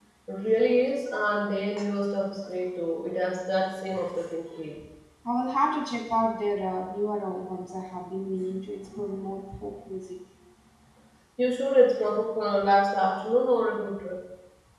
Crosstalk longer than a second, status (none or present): none